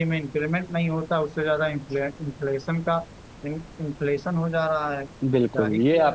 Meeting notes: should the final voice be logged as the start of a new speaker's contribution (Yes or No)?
Yes